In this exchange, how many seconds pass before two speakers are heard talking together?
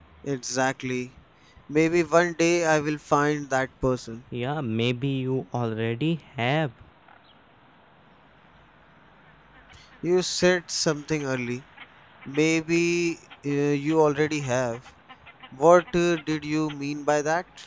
none

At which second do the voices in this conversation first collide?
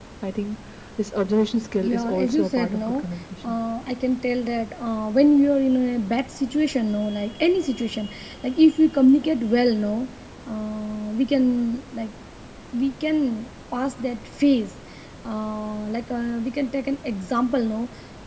1.8 s

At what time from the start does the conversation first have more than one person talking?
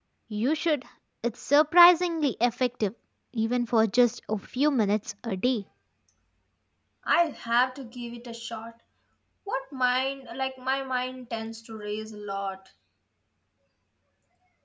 none

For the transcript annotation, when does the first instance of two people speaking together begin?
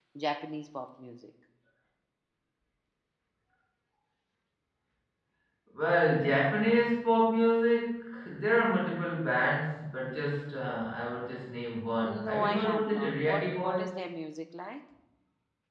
12.0 s

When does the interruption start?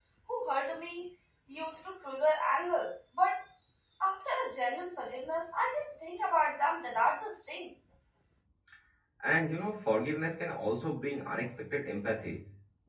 none

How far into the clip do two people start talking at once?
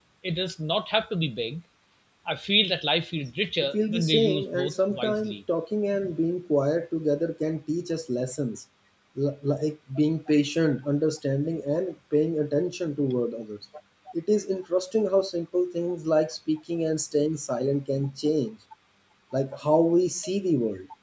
3.6 s

